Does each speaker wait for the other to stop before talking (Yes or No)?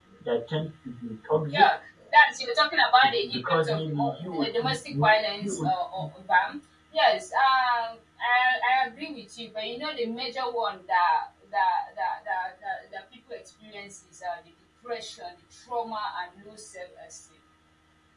No